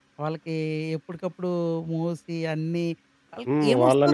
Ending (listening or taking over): taking over